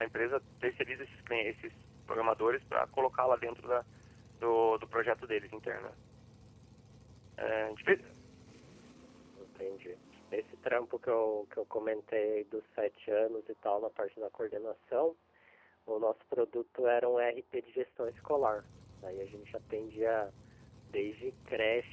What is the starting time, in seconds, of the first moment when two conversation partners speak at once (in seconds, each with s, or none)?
none